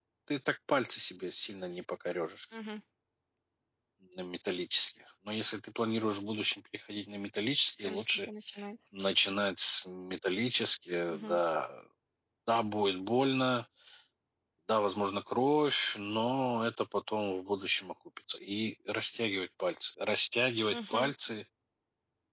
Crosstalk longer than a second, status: none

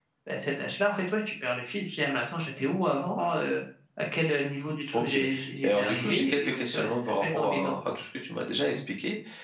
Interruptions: present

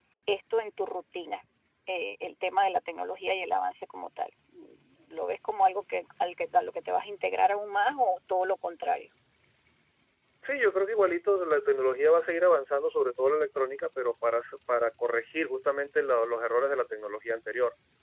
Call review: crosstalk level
none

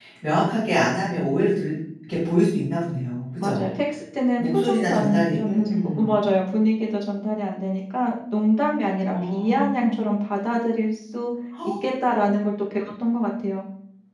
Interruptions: present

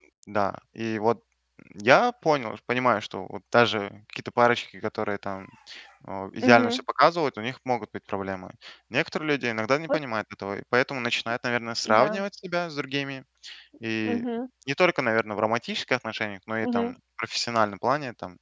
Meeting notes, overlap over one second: none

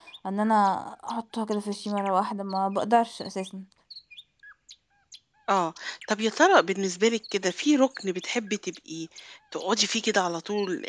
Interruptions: none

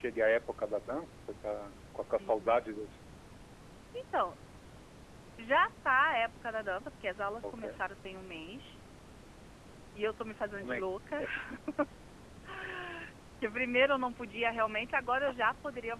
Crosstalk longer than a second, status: none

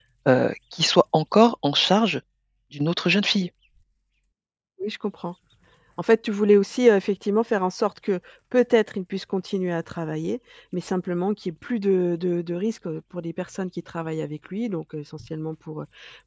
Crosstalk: none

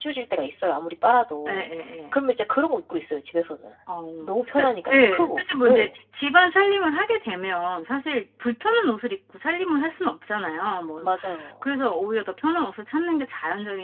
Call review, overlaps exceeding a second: present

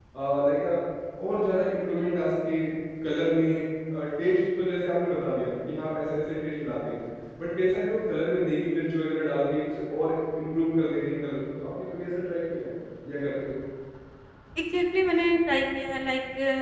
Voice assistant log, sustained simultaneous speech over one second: none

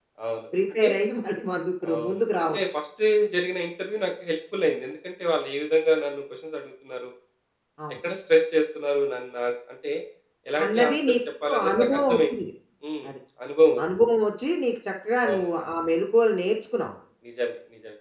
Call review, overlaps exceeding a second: present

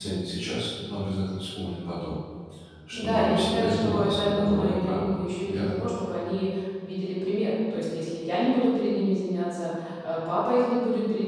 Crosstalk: present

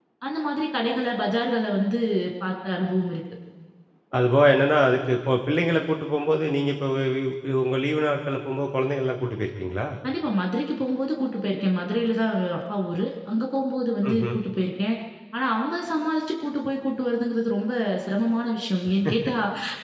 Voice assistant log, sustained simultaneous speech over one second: none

